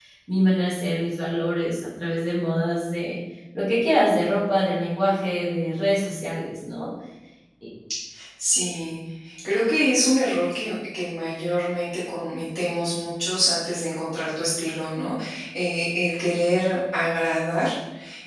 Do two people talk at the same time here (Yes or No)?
No